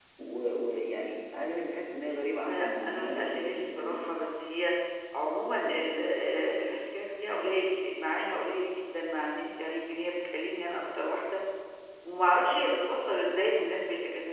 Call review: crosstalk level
present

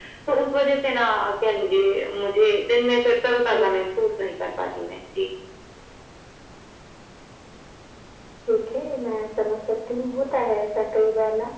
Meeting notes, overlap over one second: none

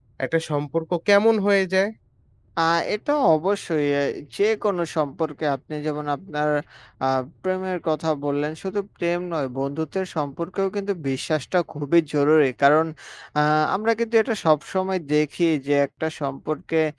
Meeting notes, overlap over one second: none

